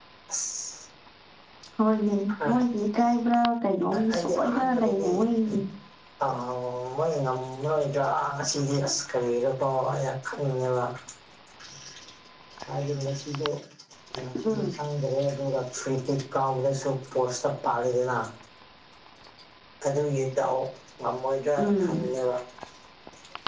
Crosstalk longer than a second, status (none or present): present